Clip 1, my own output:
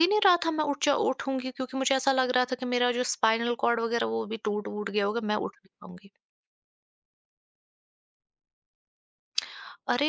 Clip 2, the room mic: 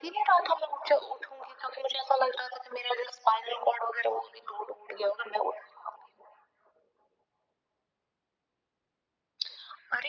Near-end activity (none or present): none